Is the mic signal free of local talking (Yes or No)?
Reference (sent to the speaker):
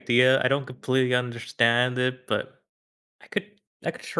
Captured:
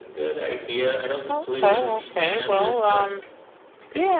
No